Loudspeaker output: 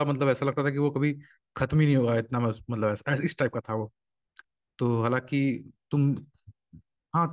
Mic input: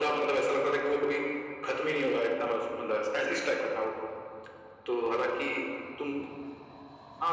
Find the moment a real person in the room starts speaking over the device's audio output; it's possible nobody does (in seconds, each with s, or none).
none